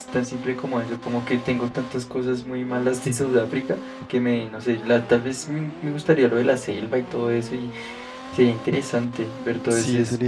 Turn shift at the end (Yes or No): Yes